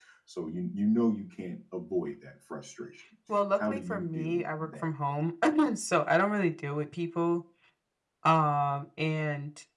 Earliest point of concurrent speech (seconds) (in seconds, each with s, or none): 3.6 s